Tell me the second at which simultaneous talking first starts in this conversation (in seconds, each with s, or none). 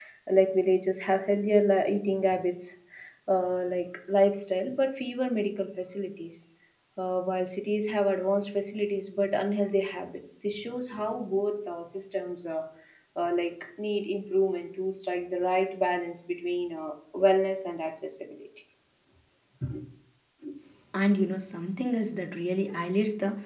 none